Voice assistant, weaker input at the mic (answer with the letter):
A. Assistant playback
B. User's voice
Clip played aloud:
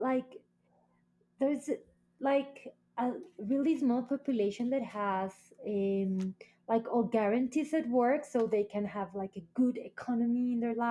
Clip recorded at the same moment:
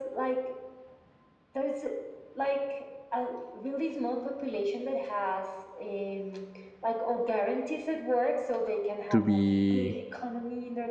A